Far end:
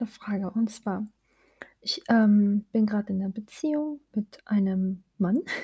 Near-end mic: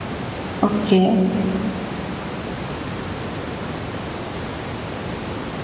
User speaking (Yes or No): Yes